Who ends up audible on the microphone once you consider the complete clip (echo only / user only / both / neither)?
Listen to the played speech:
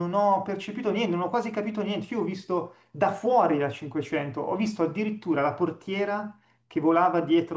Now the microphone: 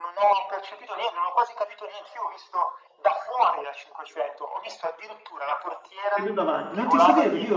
both